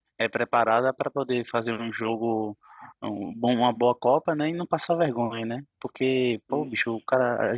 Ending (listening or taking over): listening